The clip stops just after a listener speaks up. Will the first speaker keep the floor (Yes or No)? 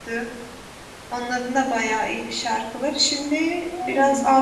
Yes